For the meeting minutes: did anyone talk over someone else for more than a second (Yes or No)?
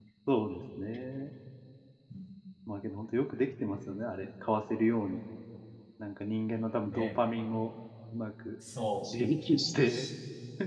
No